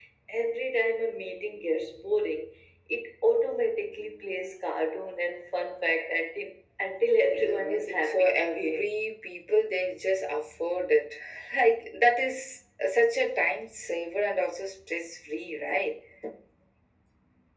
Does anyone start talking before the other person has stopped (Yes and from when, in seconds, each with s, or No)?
Yes, from 7.1 s